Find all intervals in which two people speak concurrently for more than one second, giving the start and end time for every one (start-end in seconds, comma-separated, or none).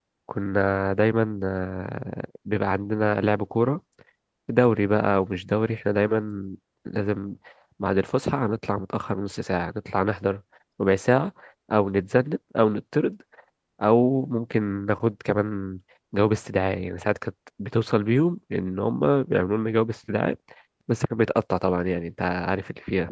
none